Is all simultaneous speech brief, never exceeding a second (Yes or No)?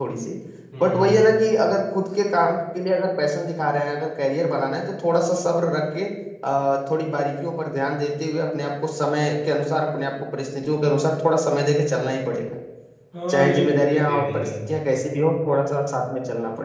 No